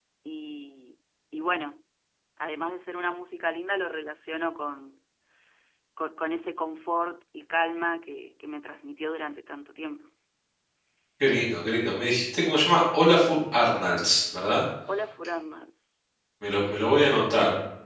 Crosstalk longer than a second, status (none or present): none